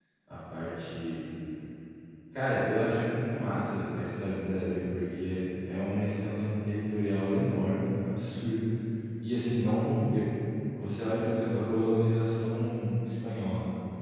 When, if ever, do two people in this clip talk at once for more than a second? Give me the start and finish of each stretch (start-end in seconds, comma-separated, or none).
none